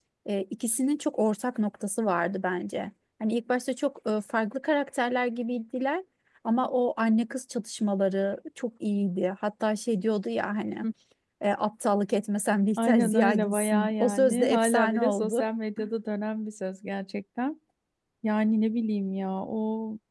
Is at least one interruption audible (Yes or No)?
Yes